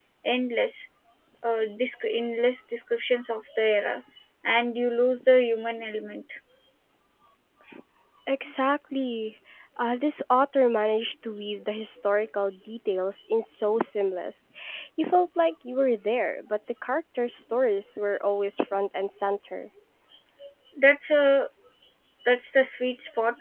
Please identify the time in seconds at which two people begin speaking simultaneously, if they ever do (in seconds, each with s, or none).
none